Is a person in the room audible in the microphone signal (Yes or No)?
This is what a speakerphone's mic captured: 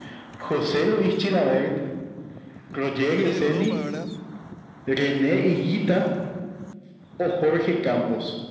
Yes